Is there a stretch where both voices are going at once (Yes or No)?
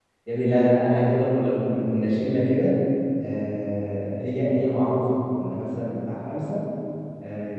No